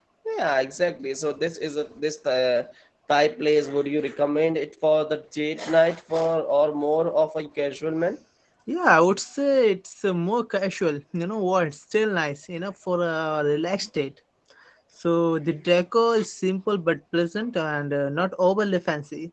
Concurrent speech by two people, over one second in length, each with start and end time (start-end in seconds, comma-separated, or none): none